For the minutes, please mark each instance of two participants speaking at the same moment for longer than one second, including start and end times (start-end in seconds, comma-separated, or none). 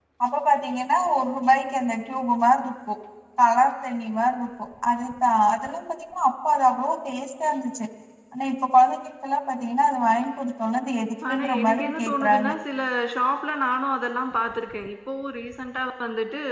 11.3-12.5